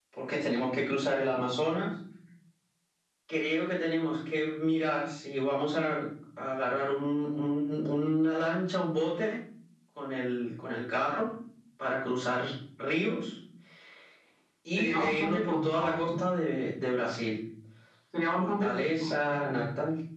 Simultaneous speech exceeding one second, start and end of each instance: 14.8-16.1, 18.4-19.6

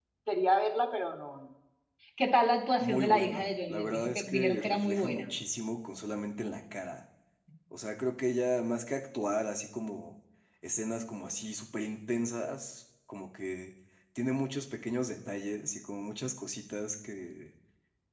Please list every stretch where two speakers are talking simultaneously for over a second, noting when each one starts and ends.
2.8-5.3

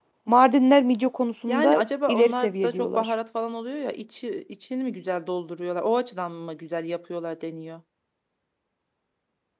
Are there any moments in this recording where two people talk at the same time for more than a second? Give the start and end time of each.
1.5-3.1

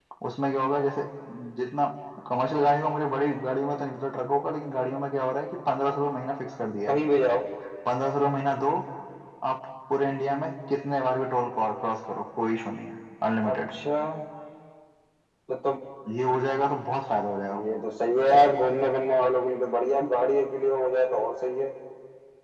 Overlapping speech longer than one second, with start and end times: none

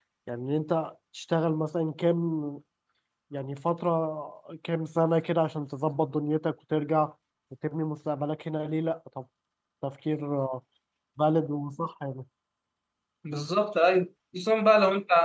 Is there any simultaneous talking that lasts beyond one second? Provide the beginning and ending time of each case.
none

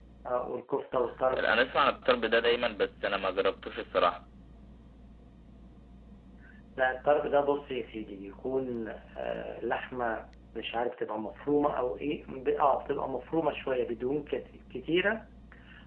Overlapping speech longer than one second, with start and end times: none

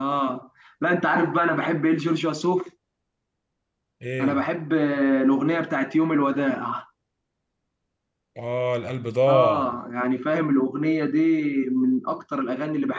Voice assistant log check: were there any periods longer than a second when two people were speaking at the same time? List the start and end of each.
none

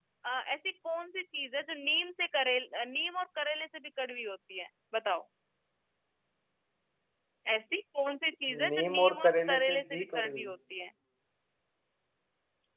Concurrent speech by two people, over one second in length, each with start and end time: 8.7-10.5

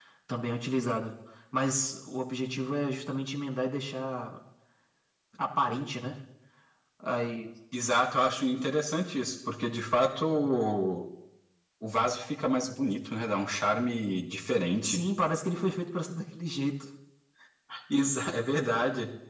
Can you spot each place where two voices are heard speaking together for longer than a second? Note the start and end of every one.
none

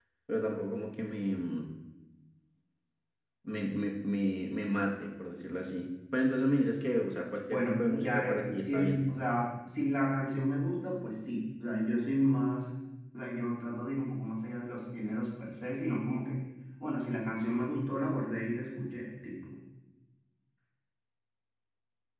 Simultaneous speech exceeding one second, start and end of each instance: 7.5-9.0

